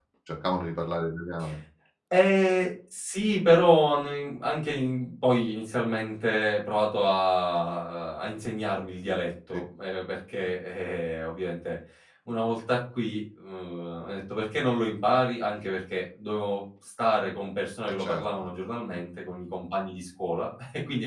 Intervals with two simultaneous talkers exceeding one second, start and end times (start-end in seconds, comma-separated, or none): none